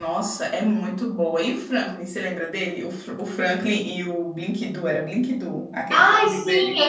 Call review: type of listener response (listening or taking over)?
taking over